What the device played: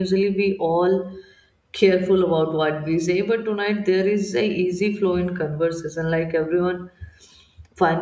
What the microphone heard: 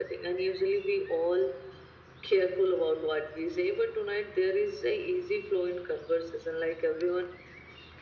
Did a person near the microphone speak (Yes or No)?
No